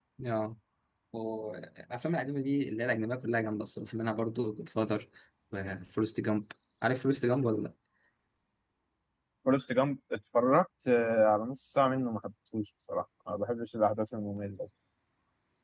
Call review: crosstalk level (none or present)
none